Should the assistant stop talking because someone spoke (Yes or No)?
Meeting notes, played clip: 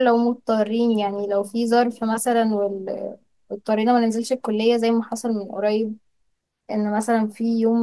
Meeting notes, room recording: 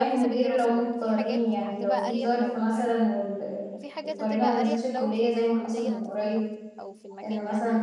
Yes